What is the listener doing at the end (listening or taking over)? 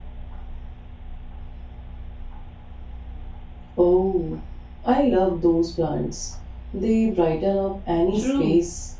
taking over